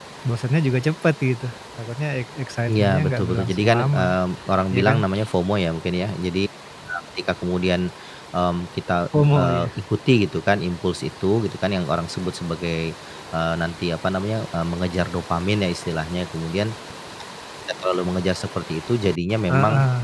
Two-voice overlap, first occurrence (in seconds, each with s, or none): 2.7 s